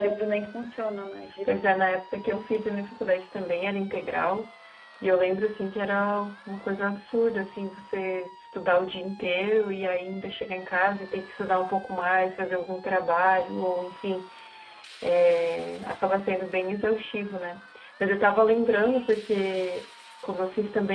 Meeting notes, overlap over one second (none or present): none